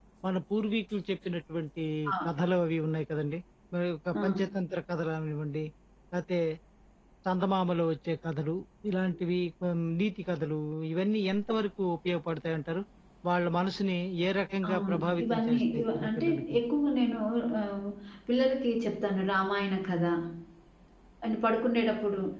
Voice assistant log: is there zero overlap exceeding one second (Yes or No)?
No